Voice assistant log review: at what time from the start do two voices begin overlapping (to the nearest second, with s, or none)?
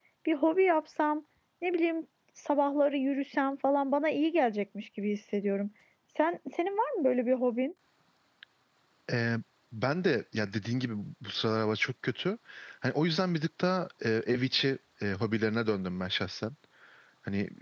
none